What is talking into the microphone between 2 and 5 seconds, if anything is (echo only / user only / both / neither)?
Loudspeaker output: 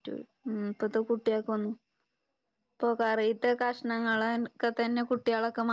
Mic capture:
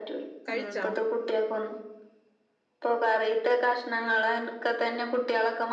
echo only